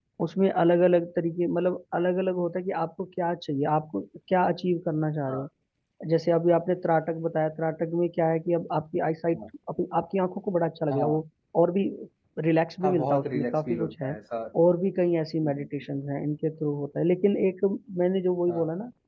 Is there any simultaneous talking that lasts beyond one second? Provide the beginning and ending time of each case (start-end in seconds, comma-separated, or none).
12.8-14.1